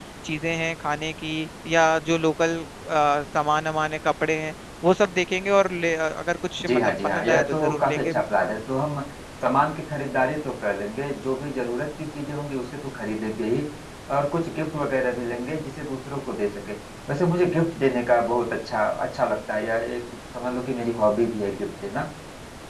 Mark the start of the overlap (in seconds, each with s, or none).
6.6 s